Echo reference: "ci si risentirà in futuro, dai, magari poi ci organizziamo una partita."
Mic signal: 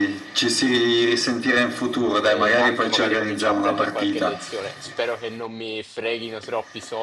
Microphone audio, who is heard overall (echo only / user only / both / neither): both